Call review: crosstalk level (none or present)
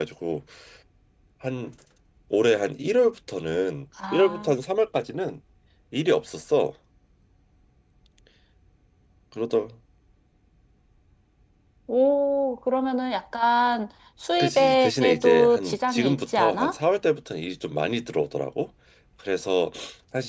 present